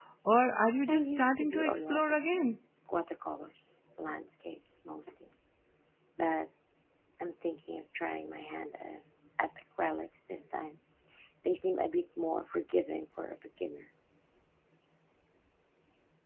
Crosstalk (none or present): present